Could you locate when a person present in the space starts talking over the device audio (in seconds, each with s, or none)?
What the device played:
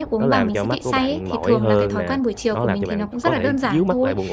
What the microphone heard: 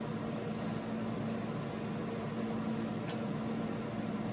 none